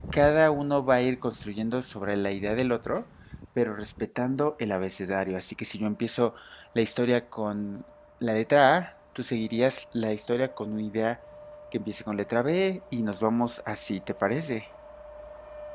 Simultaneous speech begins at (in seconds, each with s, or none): none